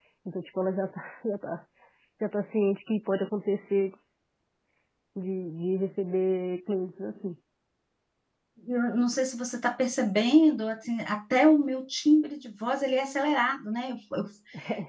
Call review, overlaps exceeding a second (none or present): none